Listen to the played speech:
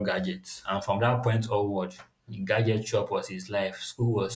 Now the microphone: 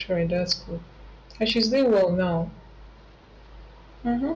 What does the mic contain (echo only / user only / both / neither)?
user only